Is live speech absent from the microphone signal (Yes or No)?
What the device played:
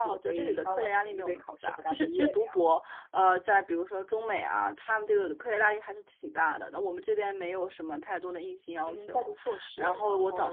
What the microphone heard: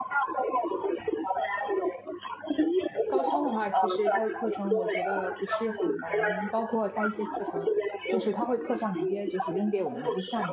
No